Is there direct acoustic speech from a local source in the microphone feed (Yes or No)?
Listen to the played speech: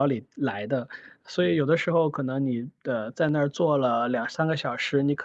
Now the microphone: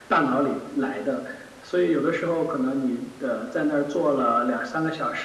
No